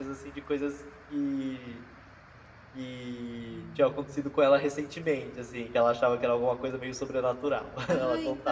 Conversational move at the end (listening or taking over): taking over